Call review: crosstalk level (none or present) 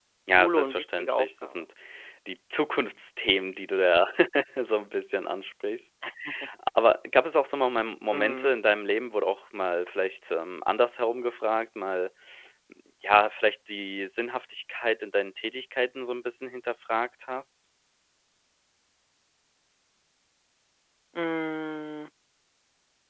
present